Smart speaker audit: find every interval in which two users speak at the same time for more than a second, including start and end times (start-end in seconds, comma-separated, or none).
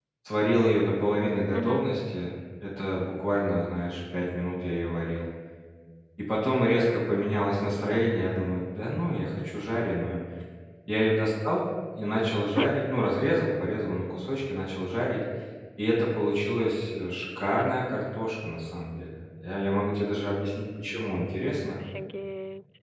none